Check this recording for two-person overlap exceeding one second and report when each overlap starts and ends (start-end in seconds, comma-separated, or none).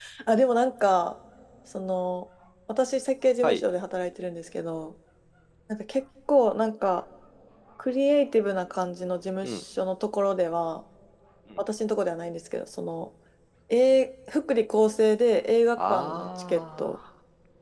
15.8-17.0